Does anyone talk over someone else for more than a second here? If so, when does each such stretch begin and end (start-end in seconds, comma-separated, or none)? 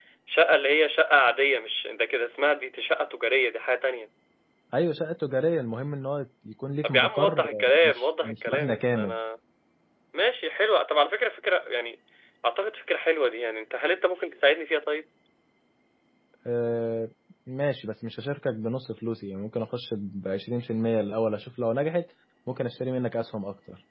6.8-9.2